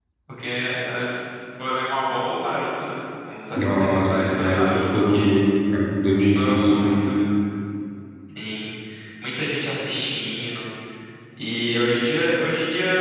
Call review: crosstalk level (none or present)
present